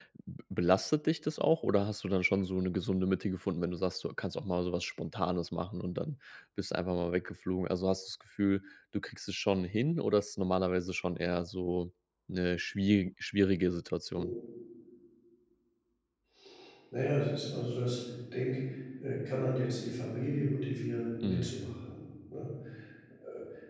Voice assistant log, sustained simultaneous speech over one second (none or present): none